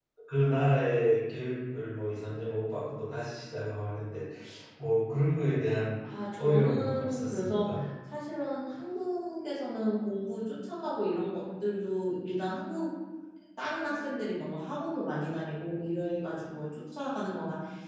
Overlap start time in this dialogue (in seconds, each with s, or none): 6.4 s